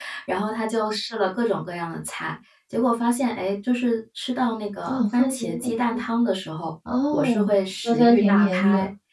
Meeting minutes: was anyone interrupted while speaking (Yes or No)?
Yes